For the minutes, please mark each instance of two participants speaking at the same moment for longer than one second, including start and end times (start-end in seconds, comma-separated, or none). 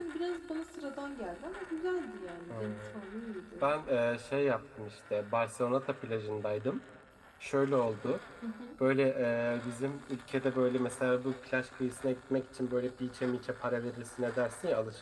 none